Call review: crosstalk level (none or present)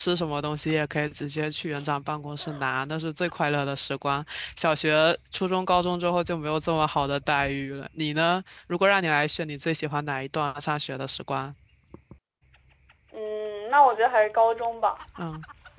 none